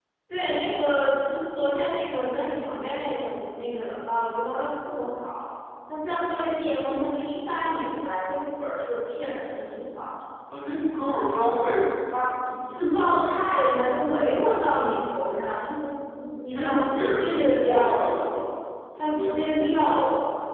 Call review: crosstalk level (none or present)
present